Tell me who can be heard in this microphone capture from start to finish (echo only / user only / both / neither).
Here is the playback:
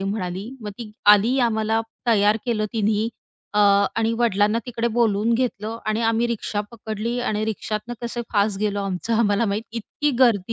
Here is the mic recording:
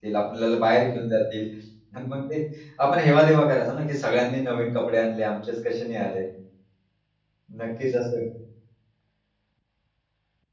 user only